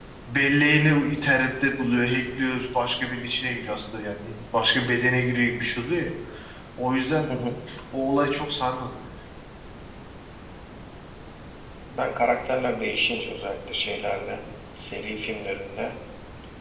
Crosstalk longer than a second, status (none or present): none